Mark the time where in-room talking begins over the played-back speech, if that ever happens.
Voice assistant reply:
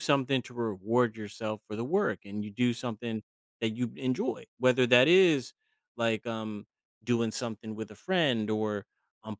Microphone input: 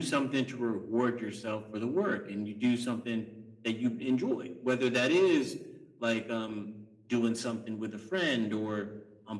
none

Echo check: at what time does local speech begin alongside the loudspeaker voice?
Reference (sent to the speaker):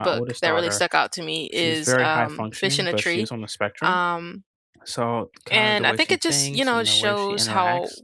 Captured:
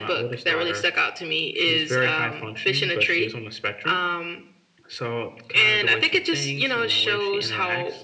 none

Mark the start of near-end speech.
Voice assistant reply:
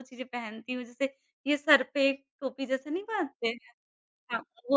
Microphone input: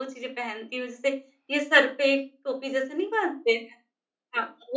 none

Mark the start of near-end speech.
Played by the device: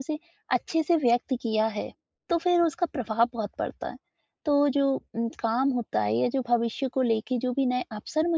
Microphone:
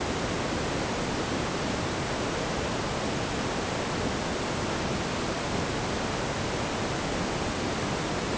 none

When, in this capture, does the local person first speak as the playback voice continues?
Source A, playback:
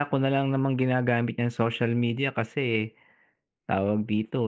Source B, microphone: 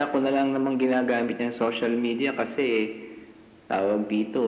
none

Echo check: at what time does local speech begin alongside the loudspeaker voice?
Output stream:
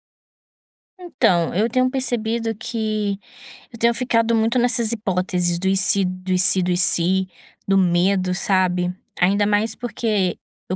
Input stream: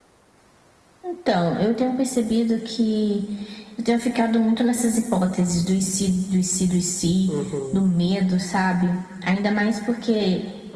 7 s

